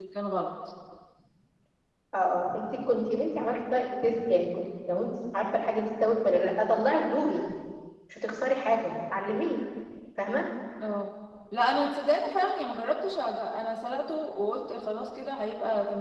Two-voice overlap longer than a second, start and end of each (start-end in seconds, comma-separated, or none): none